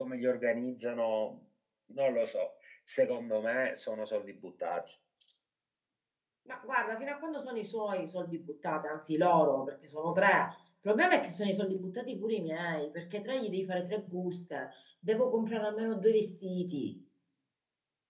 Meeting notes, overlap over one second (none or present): none